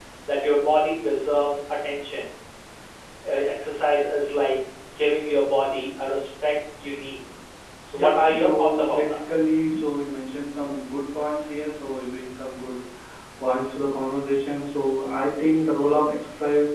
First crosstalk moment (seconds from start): 7.9 s

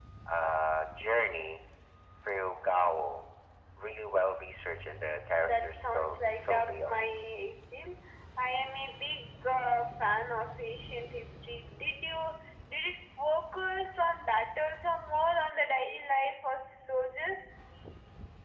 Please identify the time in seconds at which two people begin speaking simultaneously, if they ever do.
5.4 s

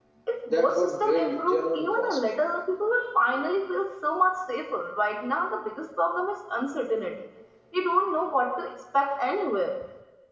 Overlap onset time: 0.5 s

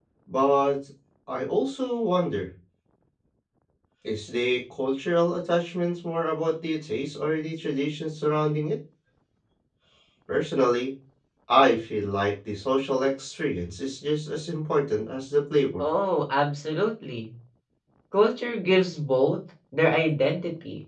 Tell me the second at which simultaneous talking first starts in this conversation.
none

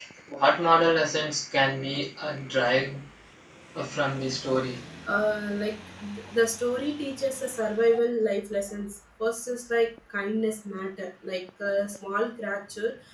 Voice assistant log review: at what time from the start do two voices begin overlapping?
none

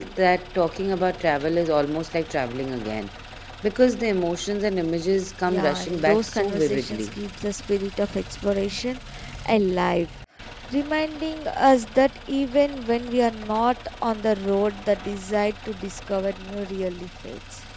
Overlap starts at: 5.5 s

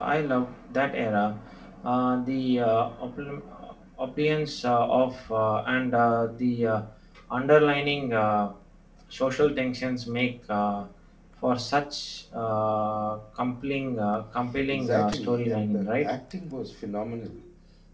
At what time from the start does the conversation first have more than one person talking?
14.7 s

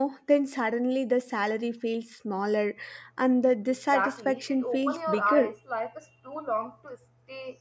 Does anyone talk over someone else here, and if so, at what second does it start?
3.9 s

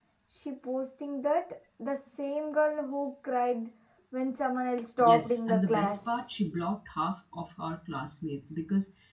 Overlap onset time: 5.0 s

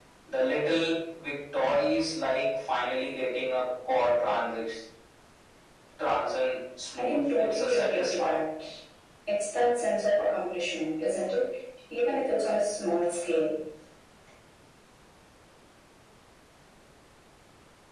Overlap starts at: 7.0 s

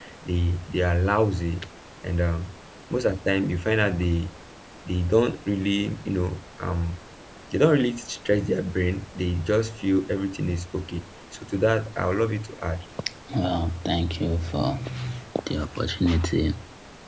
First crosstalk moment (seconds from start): none

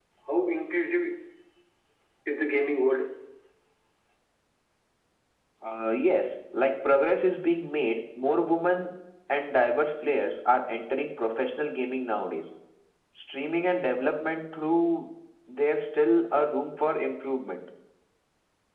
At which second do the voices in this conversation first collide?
none

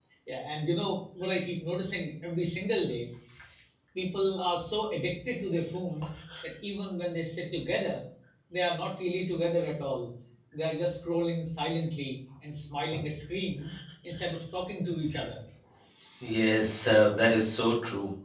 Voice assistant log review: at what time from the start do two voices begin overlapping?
none

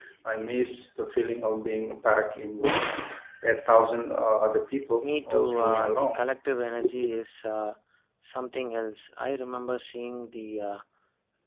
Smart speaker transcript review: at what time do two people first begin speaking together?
5.0 s

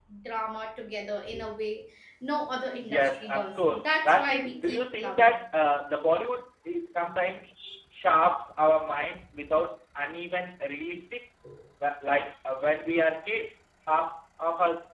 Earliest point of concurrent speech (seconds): 2.7 s

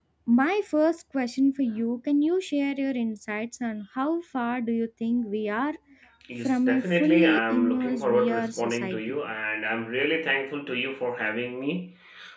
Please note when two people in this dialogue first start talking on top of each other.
6.5 s

